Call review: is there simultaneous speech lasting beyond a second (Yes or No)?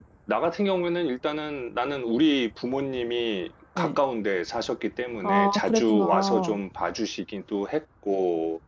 Yes